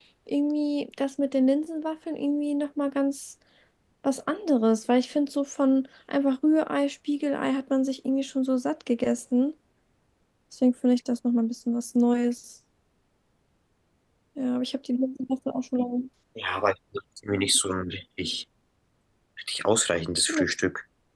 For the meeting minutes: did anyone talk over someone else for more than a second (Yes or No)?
No